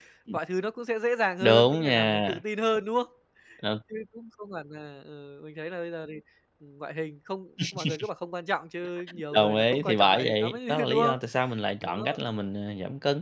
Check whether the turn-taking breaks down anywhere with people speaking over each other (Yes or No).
Yes